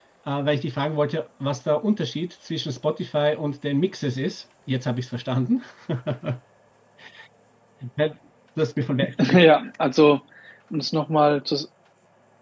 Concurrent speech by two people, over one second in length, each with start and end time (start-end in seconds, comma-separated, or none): none